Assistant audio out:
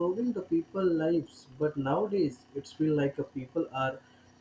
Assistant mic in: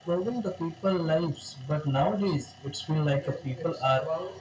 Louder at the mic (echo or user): echo